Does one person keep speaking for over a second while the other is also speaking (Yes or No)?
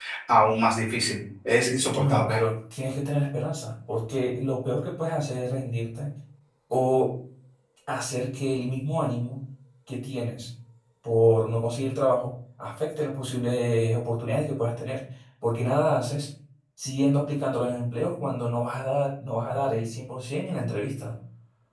No